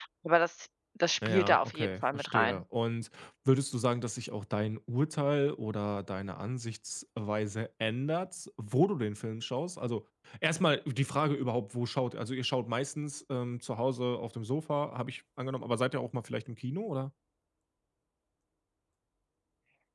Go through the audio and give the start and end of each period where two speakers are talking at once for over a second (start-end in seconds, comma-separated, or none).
1.2-2.6